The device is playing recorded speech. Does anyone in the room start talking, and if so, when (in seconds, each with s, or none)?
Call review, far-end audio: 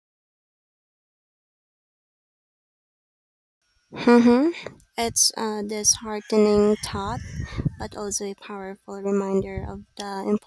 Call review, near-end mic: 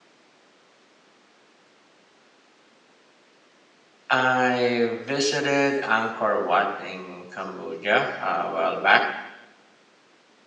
4.1 s